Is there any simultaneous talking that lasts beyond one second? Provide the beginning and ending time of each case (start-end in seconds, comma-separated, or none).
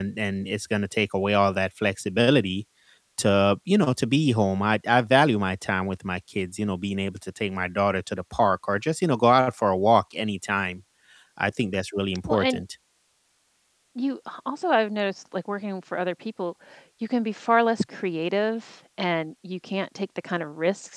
none